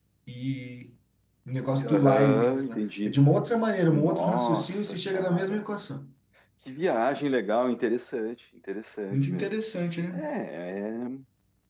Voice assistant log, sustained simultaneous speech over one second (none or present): present